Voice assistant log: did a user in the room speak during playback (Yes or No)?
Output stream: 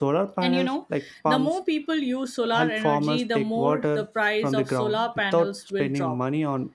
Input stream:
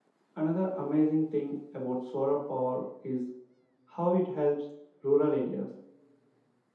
Yes